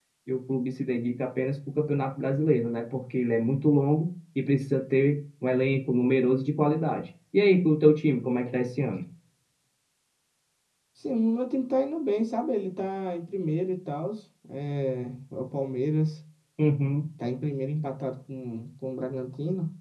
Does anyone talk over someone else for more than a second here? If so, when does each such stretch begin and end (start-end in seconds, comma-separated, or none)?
none